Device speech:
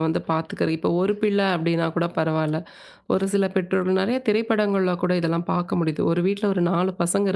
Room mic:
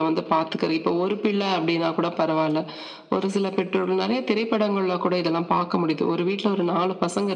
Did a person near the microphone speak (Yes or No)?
No